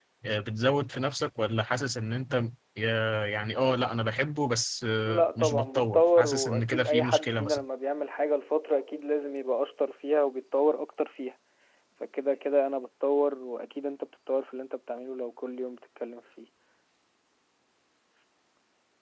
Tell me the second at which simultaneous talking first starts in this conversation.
5.0 s

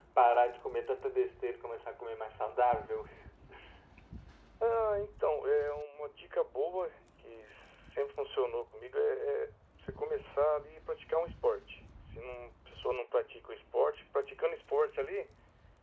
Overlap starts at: none

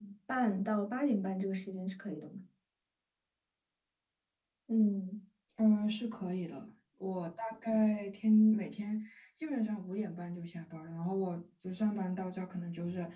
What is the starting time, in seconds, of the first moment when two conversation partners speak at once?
none

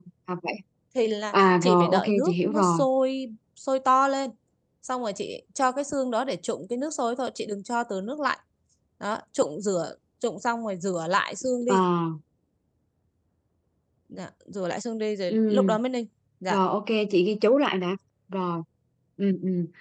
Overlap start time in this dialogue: 1.3 s

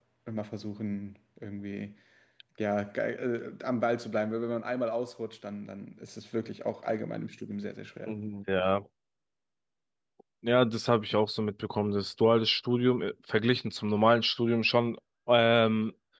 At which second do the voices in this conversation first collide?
none

